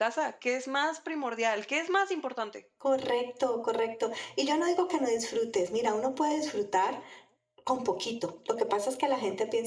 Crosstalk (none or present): none